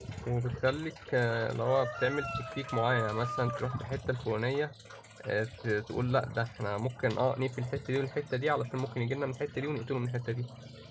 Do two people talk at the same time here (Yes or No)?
No